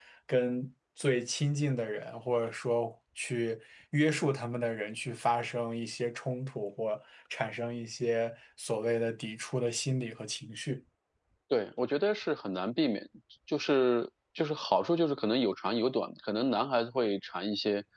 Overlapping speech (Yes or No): No